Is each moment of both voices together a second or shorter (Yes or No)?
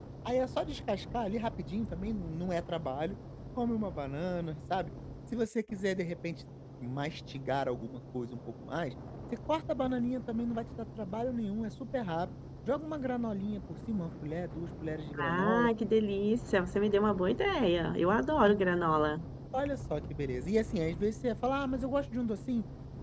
Yes